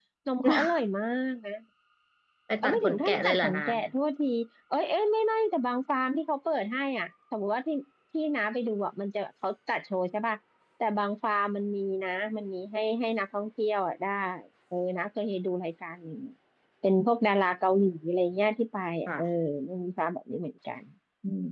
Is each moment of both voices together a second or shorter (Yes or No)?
No